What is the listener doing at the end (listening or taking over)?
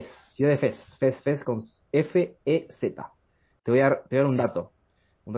listening